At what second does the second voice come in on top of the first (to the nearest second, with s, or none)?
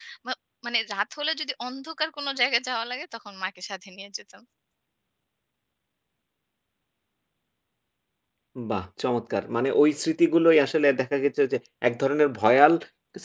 none